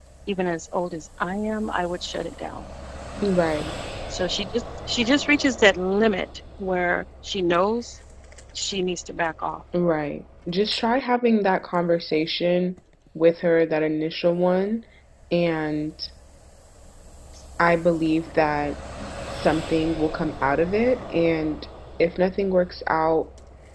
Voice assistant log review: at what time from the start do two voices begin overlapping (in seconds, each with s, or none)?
none